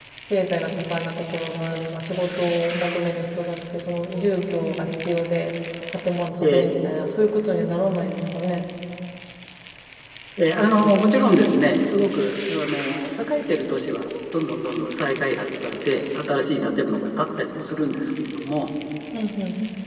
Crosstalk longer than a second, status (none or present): none